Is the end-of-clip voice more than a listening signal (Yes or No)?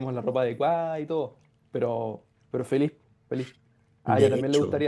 No